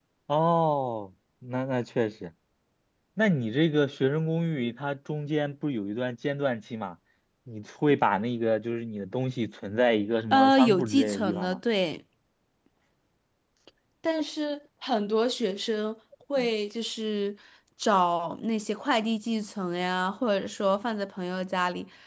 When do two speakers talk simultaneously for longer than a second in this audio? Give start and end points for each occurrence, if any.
10.3-11.6

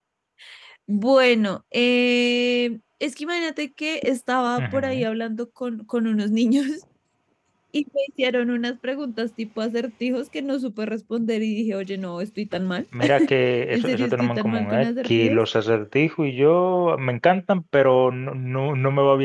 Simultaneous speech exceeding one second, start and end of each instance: 13.7-15.4

